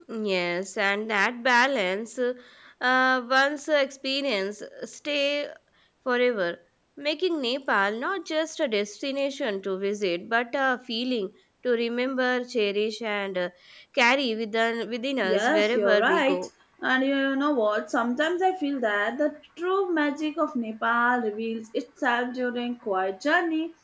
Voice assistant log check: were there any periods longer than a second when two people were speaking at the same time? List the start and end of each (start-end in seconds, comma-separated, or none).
15.2-16.5